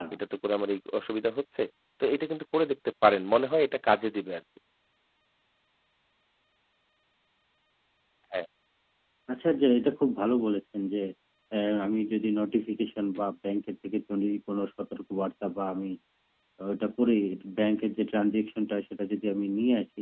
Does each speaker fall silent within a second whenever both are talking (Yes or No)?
Yes